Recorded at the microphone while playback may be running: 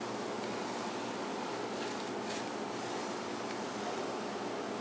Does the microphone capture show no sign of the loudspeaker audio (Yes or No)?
Yes